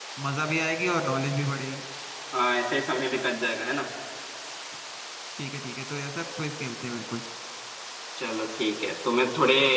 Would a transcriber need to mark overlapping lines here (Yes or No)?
No